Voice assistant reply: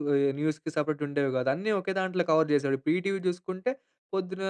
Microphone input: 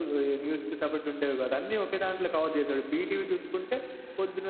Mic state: echo only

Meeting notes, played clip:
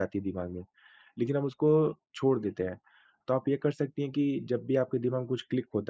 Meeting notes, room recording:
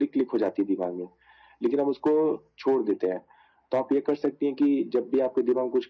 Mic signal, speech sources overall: echo only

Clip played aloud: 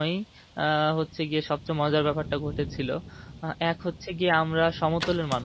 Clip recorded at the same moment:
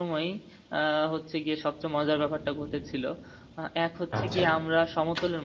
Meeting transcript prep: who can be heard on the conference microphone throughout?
both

